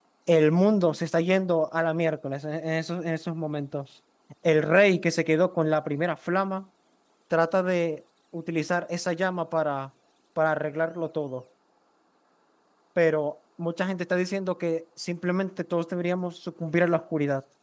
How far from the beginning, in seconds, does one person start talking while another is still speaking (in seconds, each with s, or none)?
none